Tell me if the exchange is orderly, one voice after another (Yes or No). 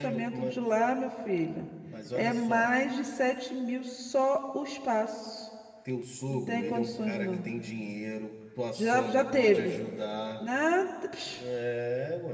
No